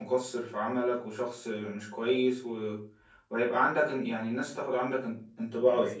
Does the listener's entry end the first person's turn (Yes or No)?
Yes